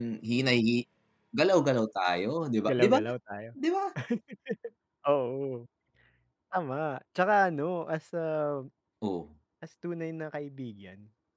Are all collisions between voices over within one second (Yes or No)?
Yes